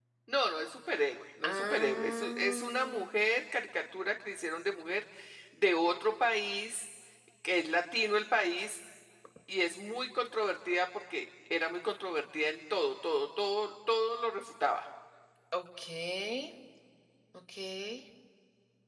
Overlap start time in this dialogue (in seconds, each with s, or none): 1.4 s